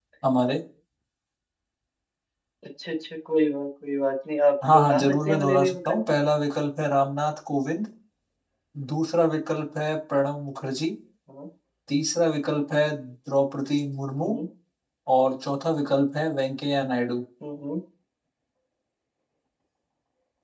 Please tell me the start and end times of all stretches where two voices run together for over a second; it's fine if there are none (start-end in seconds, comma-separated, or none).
4.7-6.0